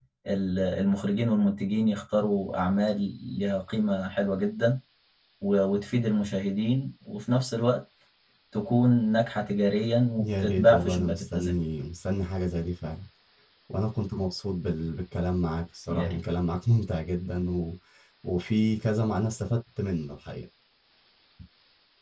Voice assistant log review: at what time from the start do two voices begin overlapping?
10.2 s

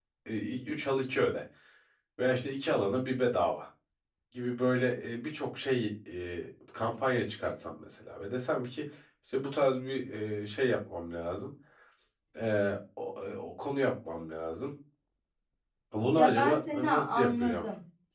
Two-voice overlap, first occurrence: 16.1 s

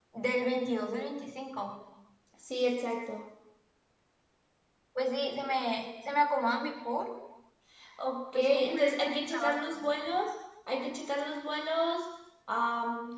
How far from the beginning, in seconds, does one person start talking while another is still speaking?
8.3 s

